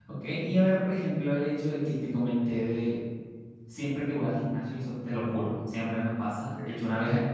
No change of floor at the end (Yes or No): Yes